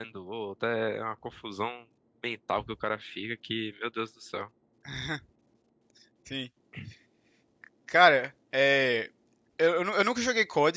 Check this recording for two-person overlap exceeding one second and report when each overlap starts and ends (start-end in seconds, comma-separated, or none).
none